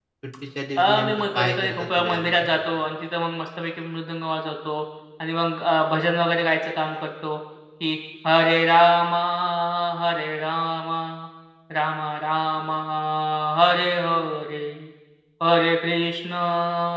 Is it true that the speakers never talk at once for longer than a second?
No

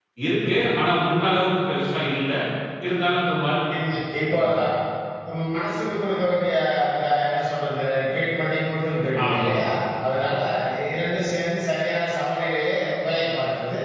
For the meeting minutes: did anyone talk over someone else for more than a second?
No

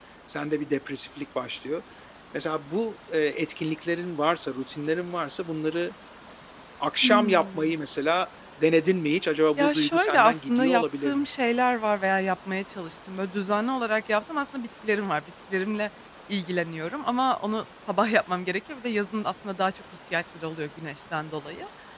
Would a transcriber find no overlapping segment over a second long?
No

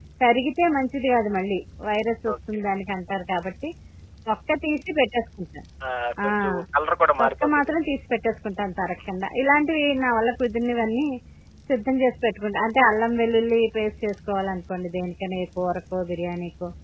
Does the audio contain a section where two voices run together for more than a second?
No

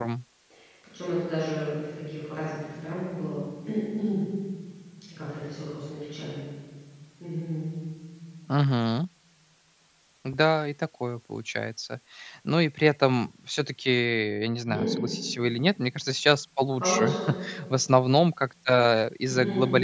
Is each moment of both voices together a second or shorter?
Yes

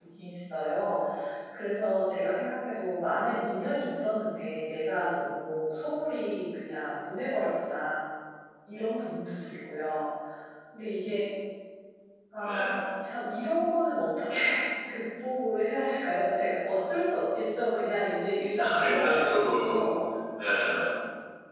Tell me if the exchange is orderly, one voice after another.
No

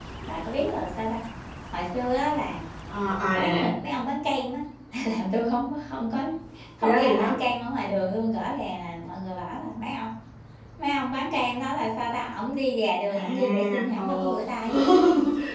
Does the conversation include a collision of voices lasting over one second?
Yes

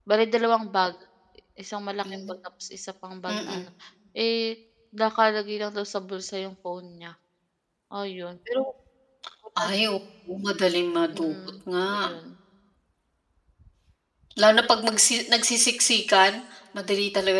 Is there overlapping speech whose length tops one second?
No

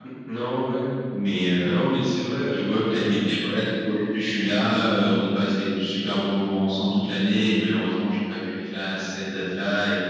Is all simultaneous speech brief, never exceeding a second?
Yes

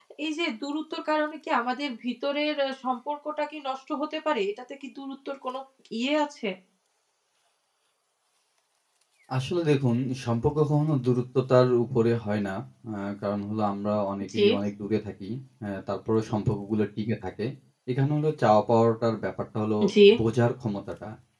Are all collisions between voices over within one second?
Yes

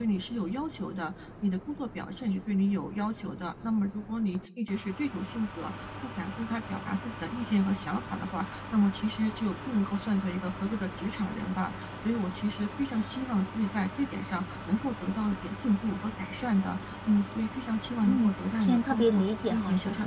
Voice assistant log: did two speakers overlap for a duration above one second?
Yes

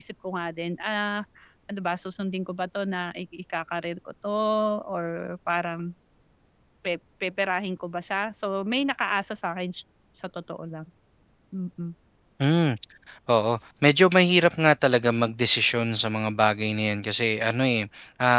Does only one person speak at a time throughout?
Yes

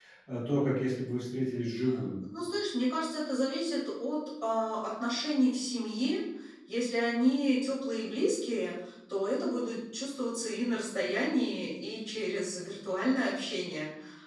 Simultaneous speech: No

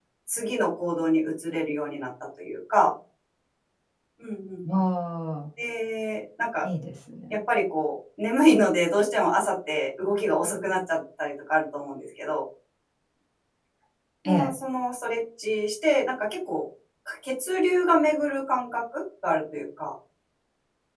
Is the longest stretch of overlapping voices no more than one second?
Yes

